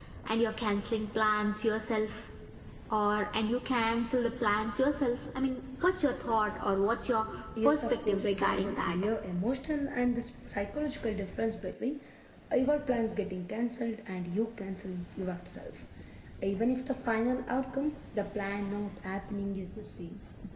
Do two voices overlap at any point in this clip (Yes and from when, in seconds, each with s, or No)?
Yes, from 7.6 s